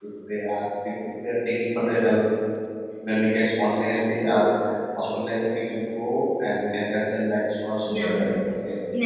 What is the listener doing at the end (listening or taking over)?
taking over